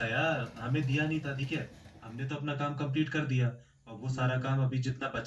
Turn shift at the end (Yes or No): No